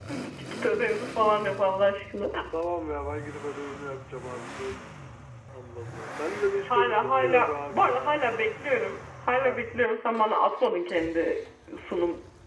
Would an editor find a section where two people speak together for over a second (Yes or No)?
Yes